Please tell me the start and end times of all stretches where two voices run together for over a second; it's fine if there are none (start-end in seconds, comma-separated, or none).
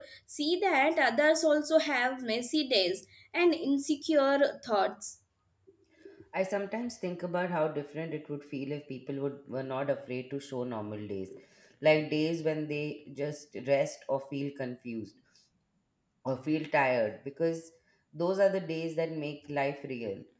none